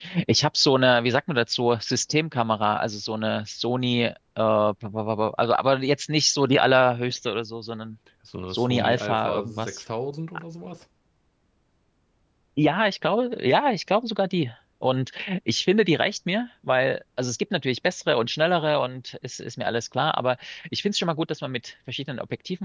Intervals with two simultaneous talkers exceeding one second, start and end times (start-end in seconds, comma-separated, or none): 8.5-9.8